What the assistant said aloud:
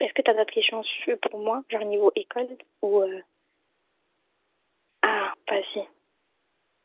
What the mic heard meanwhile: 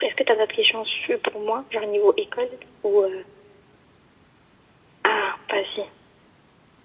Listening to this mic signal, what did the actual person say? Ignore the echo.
none

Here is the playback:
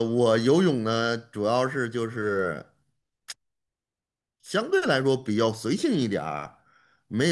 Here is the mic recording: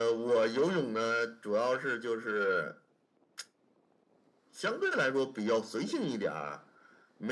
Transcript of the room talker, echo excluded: none

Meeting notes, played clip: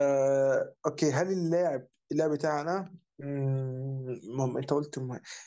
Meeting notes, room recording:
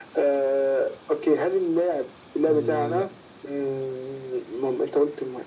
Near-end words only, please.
لا

